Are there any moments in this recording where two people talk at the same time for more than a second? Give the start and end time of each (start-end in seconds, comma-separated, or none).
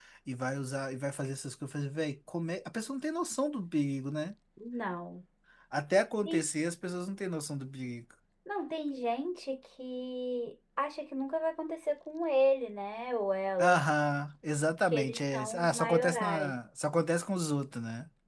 14.9-16.6